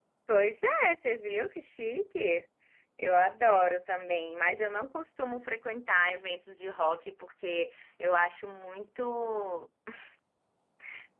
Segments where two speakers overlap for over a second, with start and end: none

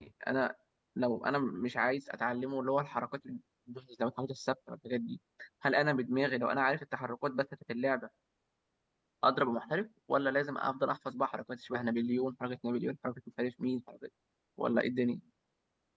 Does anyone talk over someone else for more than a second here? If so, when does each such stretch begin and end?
none

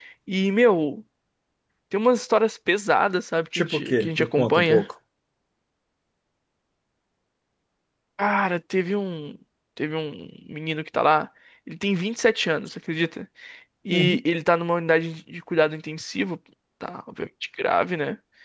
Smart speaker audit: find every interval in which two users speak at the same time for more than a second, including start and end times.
3.5-4.8

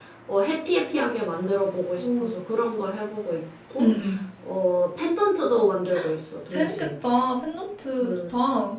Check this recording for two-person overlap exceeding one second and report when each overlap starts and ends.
none

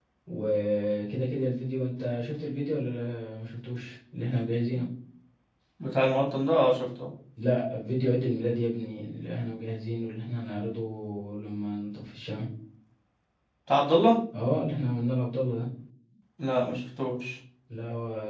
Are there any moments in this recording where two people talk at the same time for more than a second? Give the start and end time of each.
none

